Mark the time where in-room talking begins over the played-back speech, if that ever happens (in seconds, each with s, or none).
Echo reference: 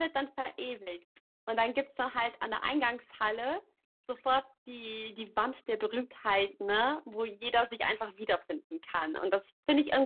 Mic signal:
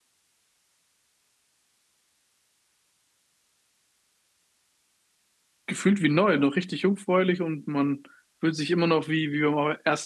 5.7 s